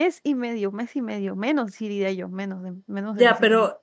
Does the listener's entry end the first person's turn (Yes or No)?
Yes